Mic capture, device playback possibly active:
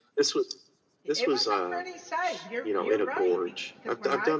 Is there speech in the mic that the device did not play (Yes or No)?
Yes